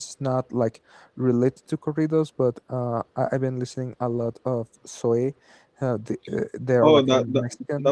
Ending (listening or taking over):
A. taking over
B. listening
A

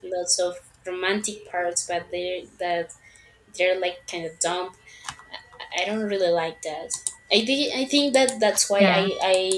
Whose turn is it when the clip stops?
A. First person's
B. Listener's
A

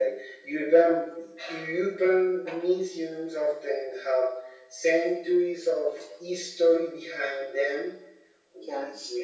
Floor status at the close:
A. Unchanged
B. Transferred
A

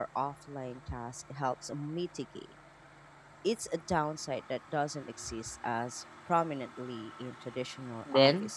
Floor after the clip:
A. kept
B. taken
B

